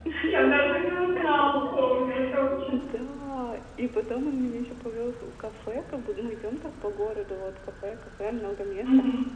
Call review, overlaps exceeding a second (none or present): none